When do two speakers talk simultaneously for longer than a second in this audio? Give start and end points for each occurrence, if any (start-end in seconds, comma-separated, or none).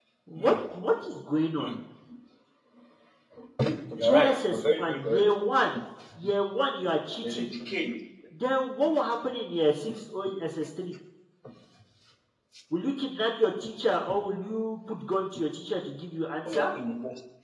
4.0-5.2